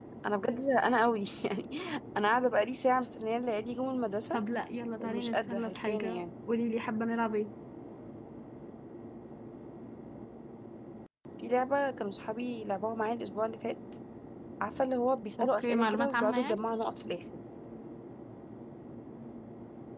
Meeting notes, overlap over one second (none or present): present